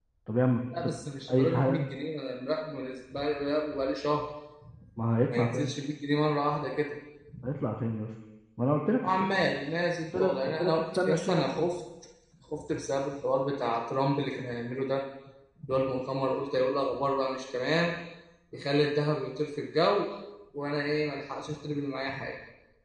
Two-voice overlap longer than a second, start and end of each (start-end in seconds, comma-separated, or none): 10.2-11.7